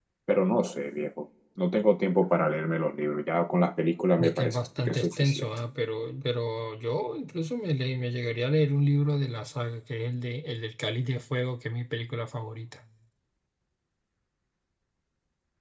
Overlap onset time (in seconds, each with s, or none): 4.2 s